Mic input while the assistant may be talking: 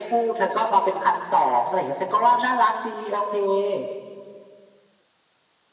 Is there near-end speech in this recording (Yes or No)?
No